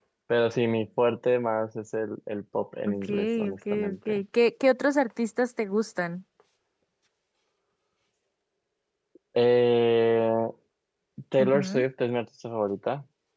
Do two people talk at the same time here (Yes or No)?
Yes